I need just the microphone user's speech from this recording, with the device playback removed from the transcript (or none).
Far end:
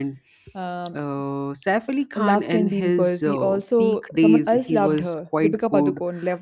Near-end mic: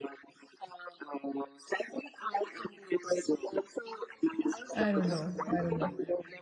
I don't know. I don't know.